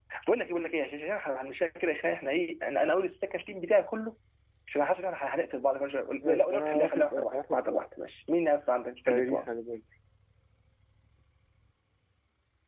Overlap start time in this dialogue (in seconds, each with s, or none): 6.2 s